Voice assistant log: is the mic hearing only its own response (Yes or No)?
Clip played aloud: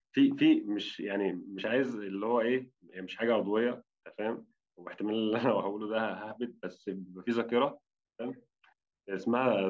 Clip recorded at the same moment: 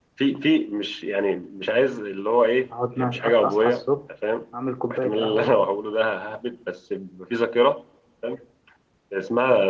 No